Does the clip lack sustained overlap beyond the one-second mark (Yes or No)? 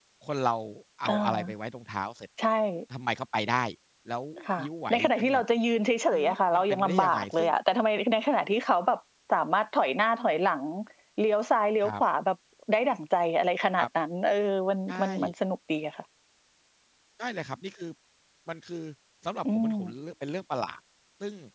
No